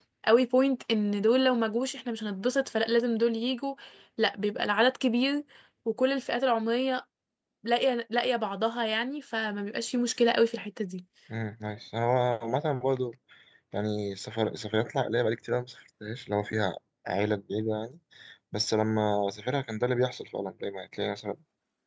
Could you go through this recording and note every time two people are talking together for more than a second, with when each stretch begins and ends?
none

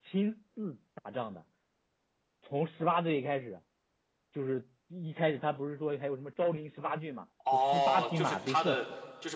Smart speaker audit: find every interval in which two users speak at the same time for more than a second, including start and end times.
7.5-8.8

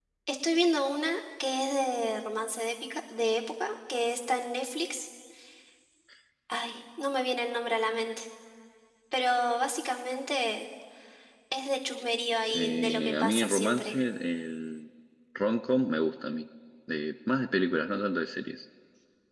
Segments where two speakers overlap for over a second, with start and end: 12.5-13.9

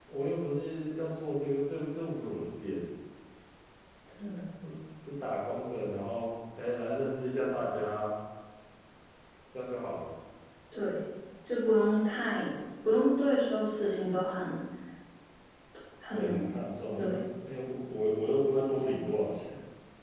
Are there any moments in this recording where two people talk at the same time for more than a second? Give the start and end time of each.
none

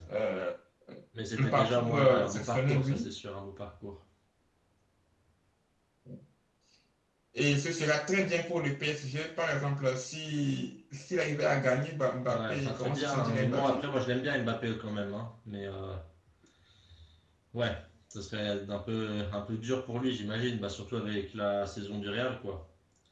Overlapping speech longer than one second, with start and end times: 1.4-3.1, 12.3-13.9

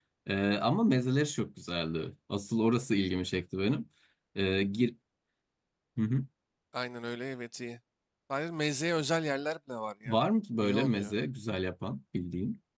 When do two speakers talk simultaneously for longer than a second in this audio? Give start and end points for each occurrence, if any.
none

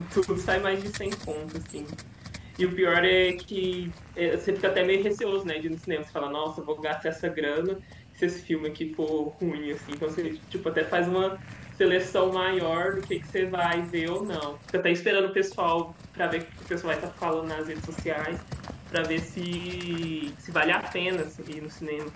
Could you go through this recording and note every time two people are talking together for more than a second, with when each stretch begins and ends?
none

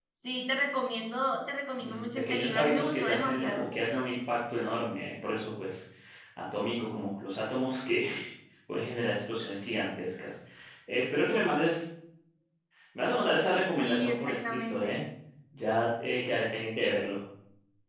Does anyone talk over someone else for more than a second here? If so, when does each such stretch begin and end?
1.8-3.6, 13.8-15.0

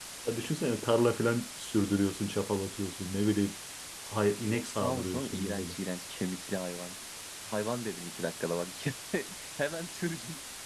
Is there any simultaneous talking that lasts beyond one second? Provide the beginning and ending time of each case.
4.4-5.7

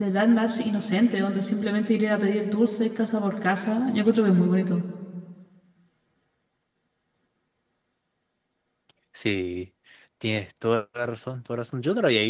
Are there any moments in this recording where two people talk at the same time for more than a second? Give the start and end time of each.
none

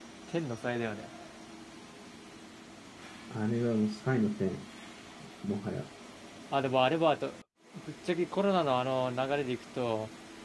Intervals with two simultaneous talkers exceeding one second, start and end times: none

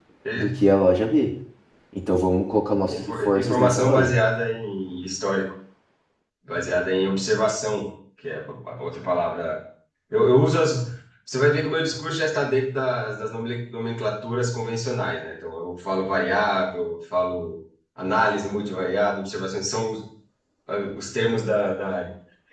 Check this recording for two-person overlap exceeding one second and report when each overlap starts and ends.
2.9-4.1

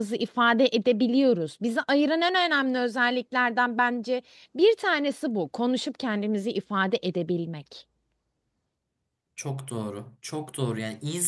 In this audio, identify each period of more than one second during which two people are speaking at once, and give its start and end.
none

